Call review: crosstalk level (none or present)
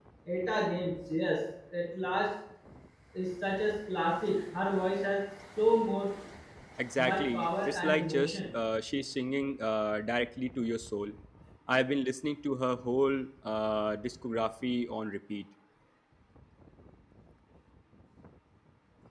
present